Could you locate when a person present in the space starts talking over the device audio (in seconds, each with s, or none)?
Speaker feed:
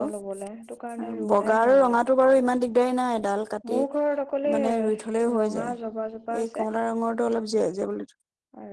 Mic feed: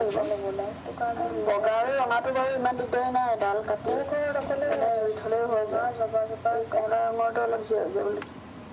none